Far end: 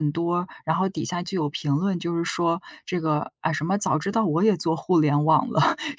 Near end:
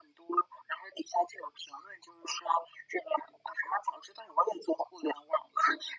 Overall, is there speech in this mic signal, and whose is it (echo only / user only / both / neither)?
echo only